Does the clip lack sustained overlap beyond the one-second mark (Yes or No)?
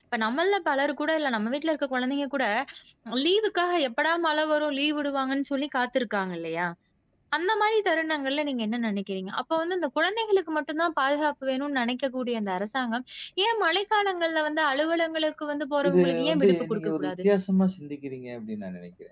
No